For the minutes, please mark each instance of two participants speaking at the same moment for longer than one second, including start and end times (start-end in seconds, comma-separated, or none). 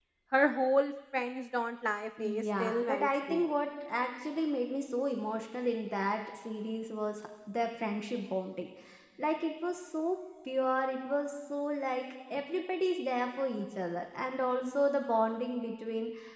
2.2-3.4